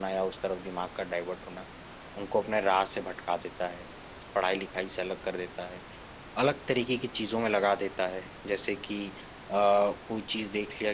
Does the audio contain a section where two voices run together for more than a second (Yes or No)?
No